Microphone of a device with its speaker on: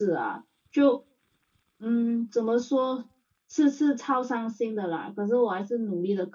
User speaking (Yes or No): Yes